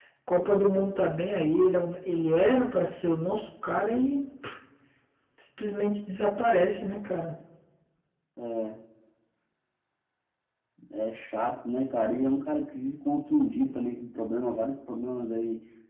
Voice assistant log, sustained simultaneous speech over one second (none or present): none